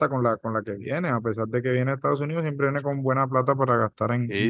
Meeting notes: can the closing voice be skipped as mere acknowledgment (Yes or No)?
No